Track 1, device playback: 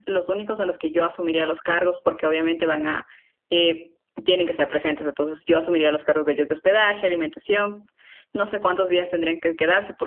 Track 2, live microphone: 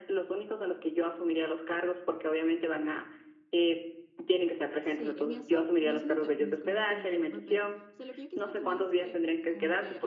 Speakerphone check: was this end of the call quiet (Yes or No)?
No